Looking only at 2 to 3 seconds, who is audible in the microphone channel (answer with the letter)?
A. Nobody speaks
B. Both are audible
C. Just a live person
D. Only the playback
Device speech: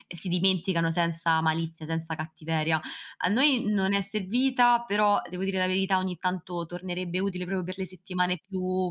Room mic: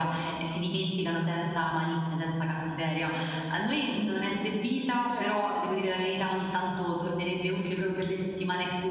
D